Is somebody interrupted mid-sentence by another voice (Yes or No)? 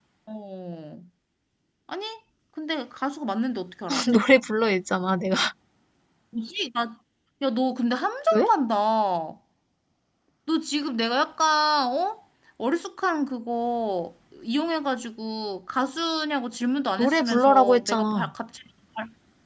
Yes